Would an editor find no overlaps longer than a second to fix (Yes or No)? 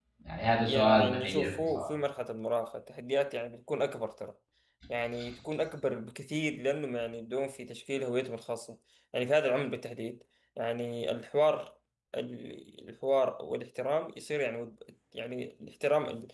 No